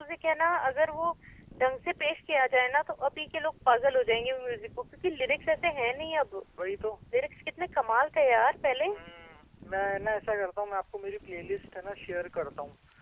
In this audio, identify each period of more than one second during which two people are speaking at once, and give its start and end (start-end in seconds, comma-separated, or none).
none